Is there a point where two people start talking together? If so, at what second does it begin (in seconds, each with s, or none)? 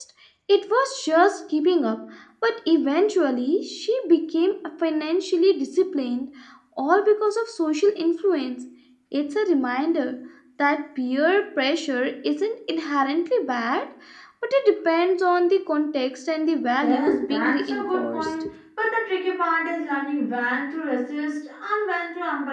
16.8 s